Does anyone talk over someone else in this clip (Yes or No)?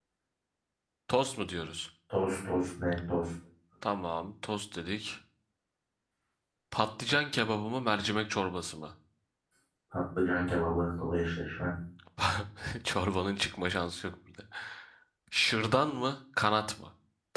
No